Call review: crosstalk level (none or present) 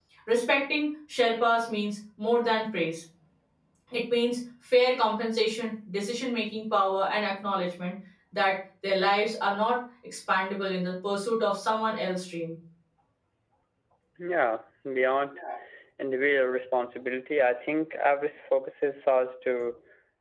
none